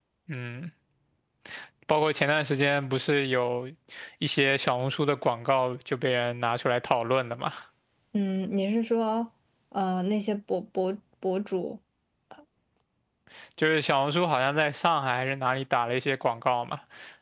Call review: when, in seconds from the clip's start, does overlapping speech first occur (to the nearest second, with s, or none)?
none